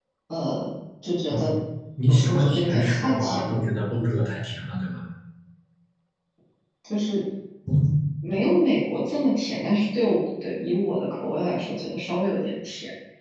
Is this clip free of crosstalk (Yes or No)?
No